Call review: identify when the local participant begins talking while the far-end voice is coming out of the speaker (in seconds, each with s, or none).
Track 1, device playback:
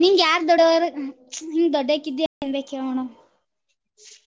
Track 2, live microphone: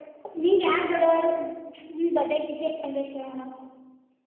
none